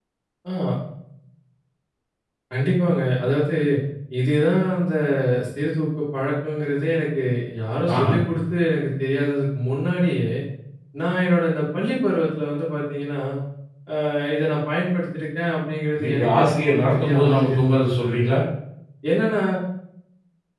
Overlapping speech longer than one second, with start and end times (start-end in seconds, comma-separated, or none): 16.0-18.3